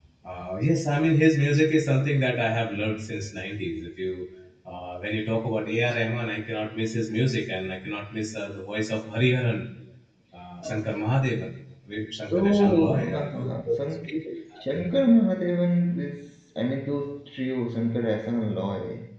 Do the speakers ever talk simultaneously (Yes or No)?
Yes